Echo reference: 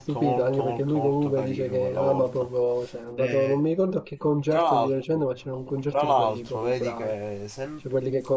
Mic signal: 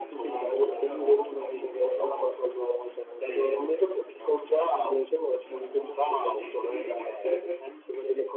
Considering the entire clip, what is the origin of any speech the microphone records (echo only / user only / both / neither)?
both